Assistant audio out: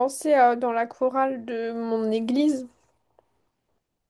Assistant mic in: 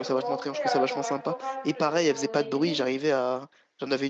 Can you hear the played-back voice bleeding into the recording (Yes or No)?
Yes